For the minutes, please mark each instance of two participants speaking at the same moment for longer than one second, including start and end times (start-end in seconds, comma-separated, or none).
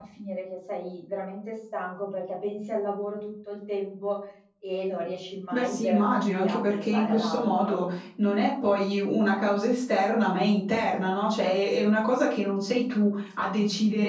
5.5-7.8